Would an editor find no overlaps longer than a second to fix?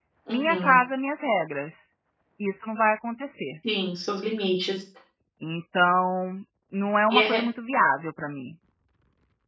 Yes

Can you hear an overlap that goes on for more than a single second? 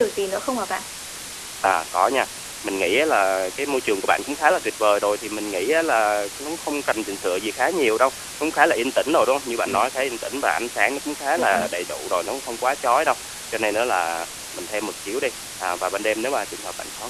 No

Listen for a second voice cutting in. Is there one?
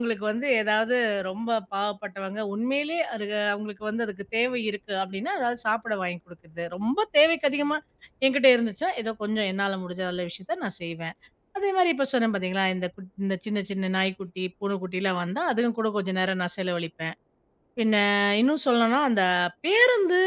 No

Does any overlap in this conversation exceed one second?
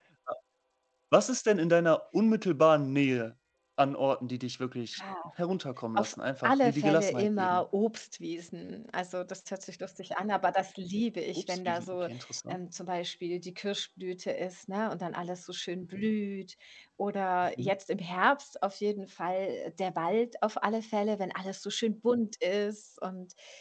Yes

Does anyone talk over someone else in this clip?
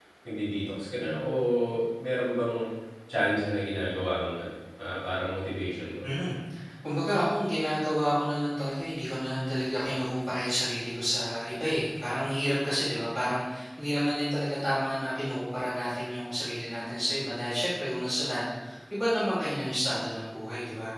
No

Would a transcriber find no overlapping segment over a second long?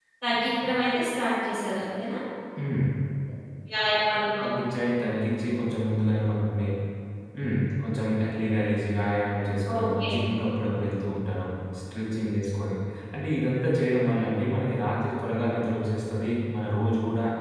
Yes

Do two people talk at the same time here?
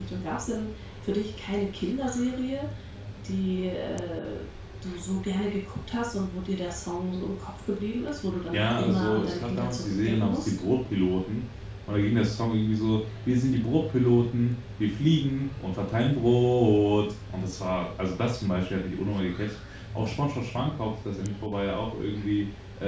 Yes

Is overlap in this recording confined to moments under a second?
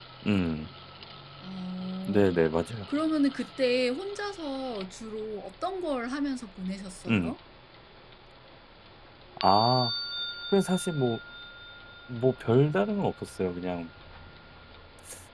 Yes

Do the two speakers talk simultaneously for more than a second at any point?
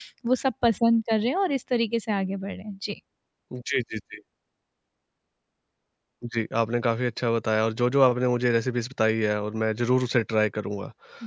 No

